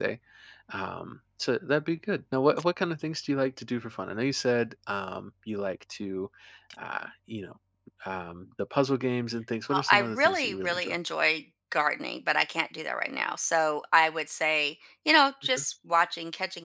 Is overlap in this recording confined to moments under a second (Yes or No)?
No